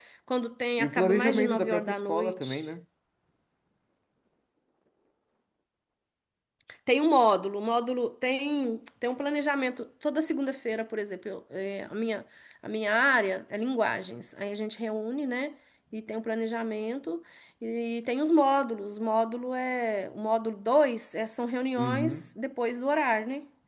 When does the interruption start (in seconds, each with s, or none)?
0.8 s